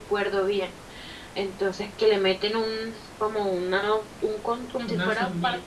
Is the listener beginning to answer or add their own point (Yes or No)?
No